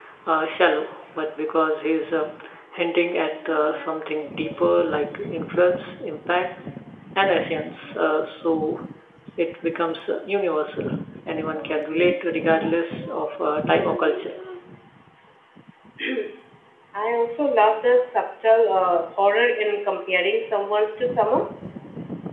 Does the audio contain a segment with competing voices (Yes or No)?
No